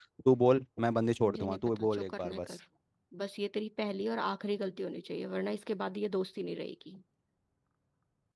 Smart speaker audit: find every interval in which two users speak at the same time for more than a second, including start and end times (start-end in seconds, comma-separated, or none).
1.2-2.5